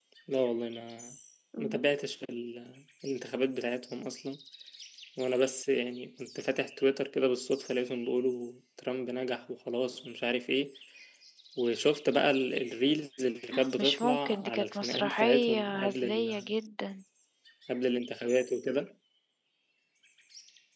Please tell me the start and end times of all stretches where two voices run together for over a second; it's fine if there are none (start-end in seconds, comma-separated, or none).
13.8-16.4